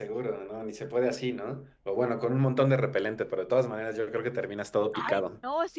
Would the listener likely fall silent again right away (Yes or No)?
No